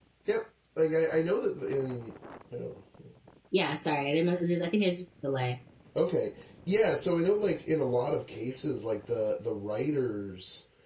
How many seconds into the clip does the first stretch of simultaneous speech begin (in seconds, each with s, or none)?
none